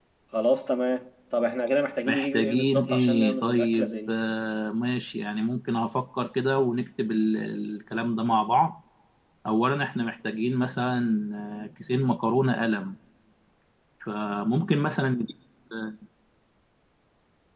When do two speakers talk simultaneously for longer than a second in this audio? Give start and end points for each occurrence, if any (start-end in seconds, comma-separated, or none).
2.1-4.1